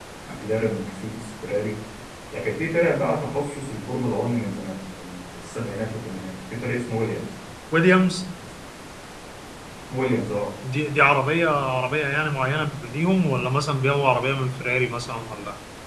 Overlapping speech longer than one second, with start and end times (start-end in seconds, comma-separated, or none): none